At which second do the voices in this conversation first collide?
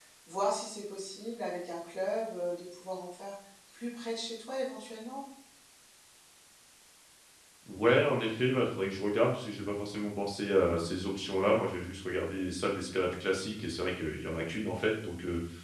none

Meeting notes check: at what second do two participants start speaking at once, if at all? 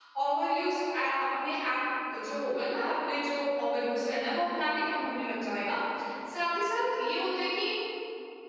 none

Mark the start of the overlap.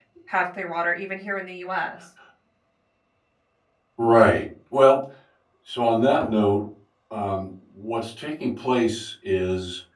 none

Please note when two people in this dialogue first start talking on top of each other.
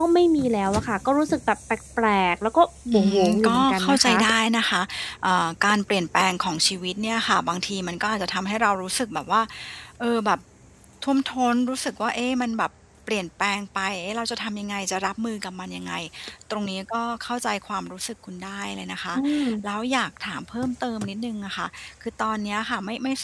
2.9 s

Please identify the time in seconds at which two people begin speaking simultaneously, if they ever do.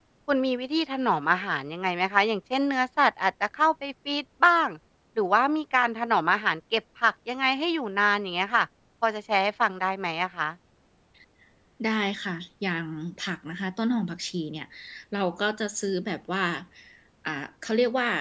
none

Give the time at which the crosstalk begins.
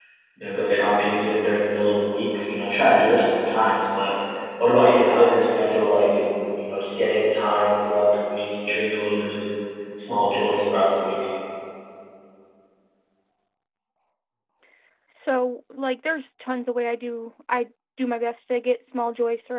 none

